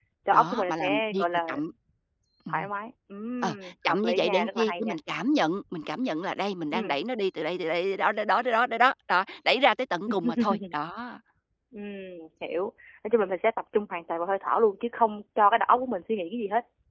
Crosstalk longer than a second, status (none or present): present